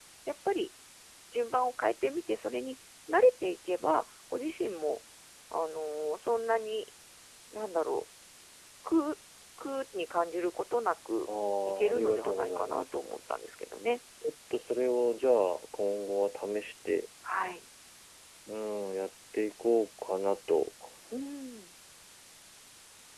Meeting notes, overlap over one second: present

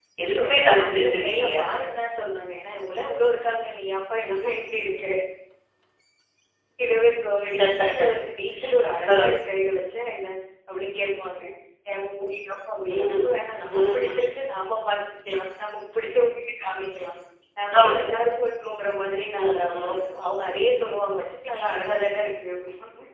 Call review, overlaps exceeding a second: present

